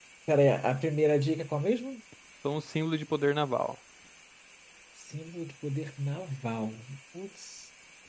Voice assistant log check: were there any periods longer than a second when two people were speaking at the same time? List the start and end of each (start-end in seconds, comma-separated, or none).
none